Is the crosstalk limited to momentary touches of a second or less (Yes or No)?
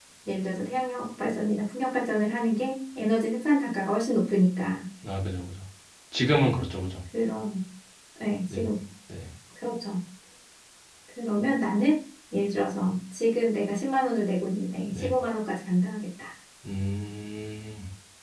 Yes